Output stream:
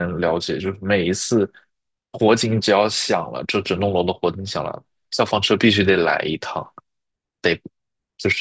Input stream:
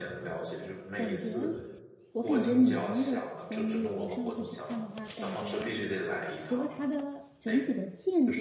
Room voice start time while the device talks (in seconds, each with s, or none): 1.0 s